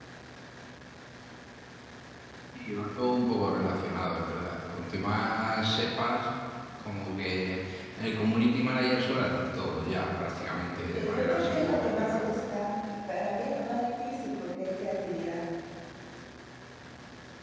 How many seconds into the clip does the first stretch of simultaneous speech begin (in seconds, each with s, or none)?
10.9 s